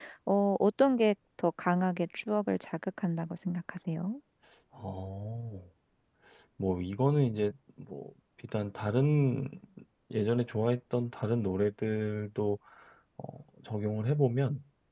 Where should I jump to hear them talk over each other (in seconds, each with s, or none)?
none